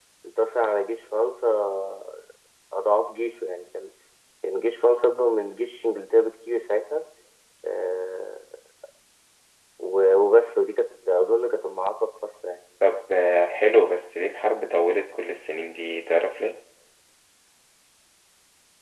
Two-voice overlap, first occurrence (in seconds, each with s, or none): none